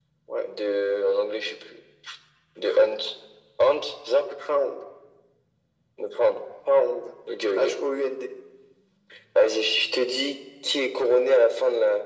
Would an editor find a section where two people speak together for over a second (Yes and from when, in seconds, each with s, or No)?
No